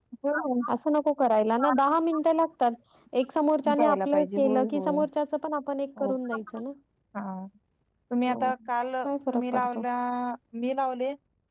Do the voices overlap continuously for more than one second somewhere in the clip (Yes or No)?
Yes